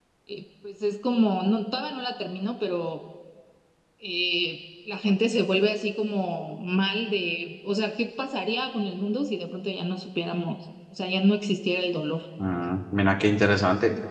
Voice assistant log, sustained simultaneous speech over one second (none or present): none